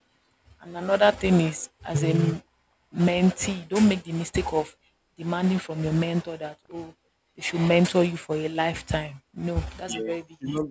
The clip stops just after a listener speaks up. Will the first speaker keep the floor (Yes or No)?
No